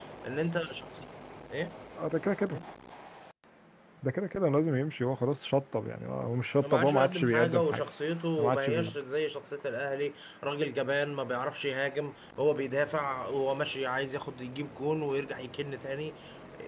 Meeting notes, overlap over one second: present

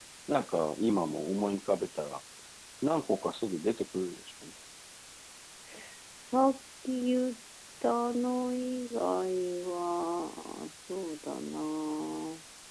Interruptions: none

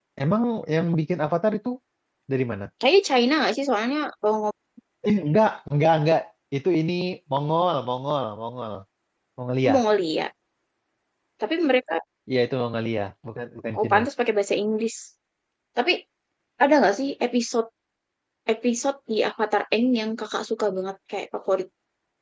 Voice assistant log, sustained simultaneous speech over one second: none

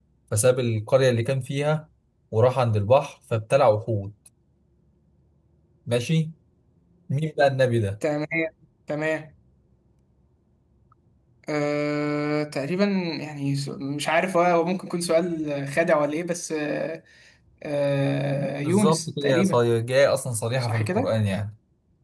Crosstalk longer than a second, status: present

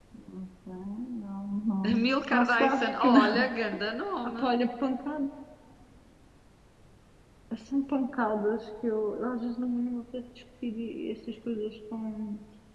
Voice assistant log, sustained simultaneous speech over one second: present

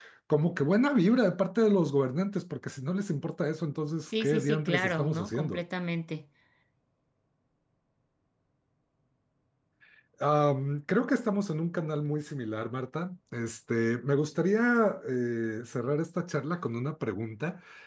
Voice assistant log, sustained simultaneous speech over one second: present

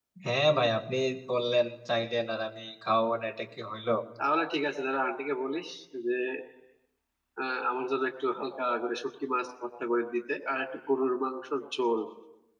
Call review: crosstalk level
none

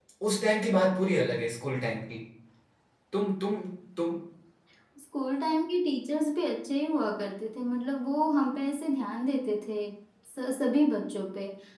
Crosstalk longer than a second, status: none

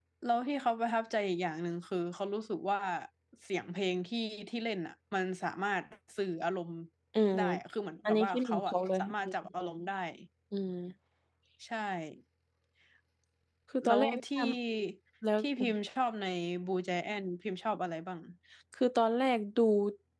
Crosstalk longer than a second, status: present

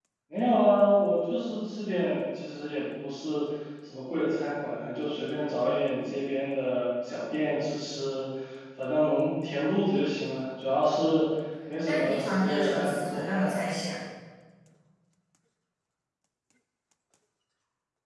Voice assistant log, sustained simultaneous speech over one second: present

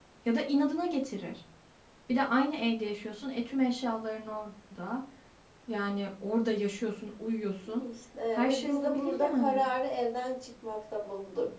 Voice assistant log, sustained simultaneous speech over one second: present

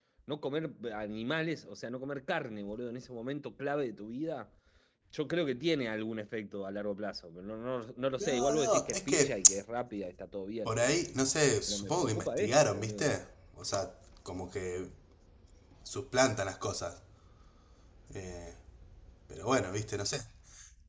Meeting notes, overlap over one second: present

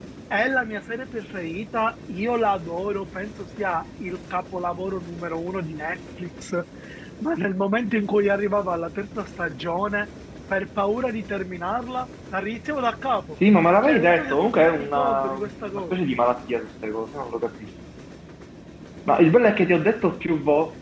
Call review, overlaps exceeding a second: present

